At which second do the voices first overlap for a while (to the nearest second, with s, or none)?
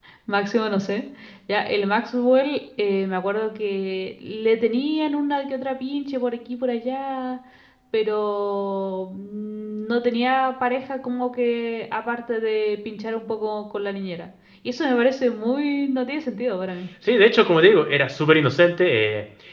none